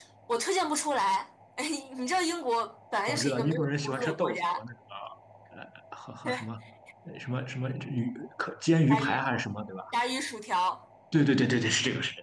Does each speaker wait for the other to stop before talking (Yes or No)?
No